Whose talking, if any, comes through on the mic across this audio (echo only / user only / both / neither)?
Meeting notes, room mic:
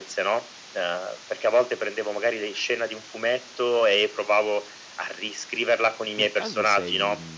both